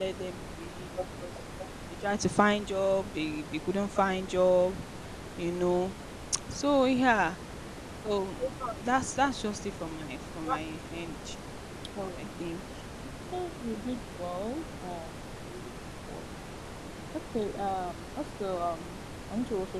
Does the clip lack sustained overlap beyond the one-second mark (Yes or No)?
Yes